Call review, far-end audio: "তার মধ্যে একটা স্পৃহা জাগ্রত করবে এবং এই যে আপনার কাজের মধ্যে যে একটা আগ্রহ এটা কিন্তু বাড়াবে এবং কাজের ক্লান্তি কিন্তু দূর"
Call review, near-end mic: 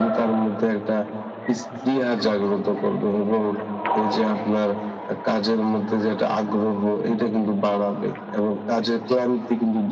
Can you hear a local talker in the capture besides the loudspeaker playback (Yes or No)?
No